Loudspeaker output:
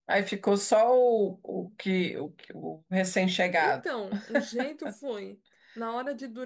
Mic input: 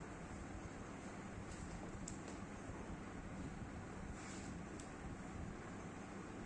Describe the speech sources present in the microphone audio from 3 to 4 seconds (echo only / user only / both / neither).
neither